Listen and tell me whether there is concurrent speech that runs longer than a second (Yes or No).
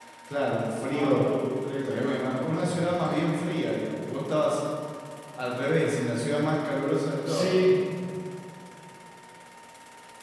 Yes